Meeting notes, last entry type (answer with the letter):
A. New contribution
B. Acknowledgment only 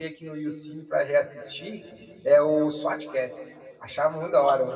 A